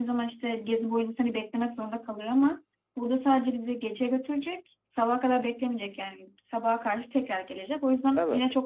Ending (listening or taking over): listening